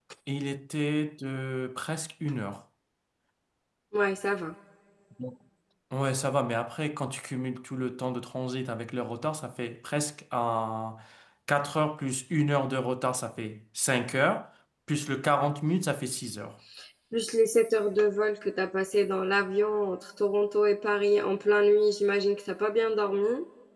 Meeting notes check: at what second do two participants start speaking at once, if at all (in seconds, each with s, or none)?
none